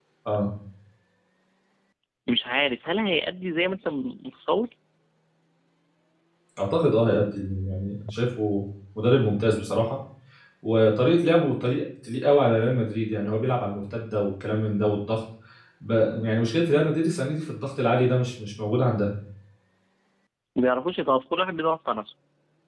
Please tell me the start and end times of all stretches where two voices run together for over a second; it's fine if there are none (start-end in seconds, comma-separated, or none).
none